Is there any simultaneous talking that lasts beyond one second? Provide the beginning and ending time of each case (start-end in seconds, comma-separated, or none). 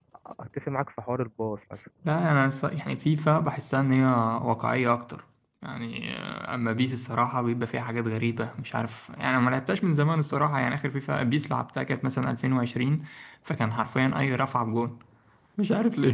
none